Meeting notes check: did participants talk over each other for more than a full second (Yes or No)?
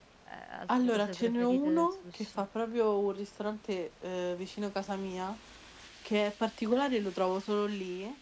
Yes